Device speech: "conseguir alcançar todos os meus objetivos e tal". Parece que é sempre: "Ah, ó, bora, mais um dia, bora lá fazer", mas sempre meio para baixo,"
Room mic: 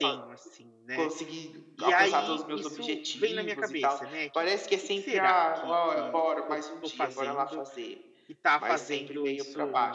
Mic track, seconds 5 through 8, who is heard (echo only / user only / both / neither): both